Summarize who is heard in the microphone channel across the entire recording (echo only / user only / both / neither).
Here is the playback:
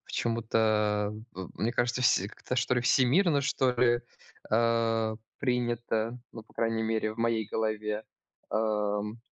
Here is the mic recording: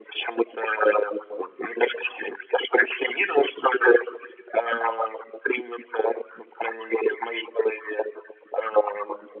echo only